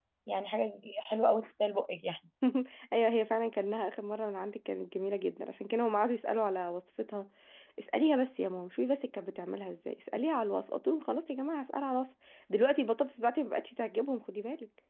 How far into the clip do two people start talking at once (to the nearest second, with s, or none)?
none